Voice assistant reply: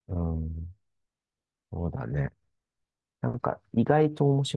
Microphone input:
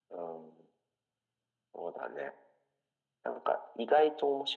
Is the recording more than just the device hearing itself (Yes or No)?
No